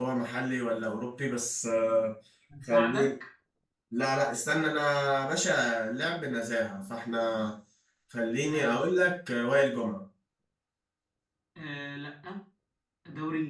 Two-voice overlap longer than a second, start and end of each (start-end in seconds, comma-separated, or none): none